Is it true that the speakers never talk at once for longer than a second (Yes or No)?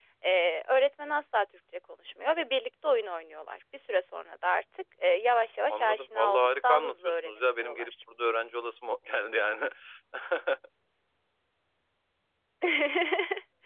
No